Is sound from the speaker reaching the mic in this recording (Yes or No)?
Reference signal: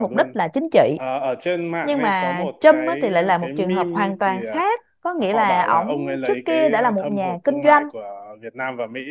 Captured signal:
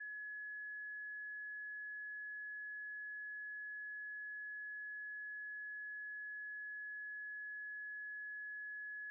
No